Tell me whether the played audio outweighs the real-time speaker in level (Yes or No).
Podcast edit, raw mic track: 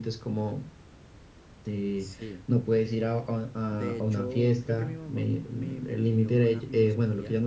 Yes